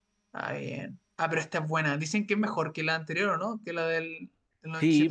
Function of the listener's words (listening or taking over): taking over